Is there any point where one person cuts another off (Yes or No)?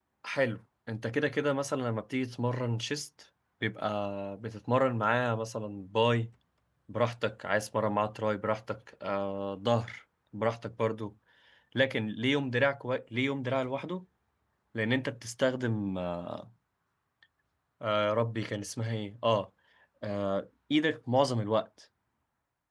No